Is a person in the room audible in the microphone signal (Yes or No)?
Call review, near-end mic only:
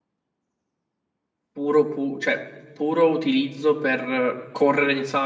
Yes